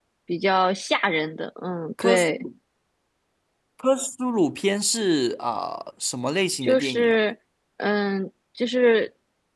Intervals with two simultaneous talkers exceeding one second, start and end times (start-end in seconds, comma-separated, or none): none